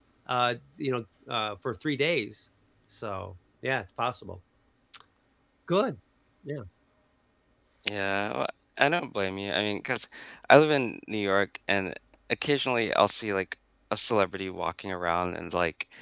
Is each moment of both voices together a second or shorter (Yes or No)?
Yes